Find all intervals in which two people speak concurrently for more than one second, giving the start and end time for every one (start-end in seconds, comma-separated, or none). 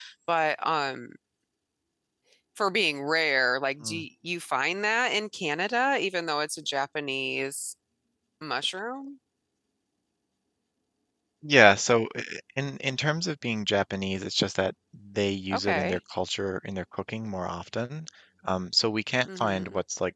none